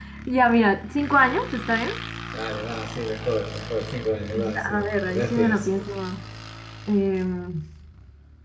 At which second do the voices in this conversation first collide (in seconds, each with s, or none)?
4.3 s